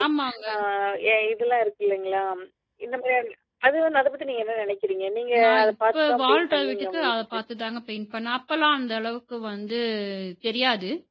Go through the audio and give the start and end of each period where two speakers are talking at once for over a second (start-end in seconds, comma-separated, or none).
5.4-7.4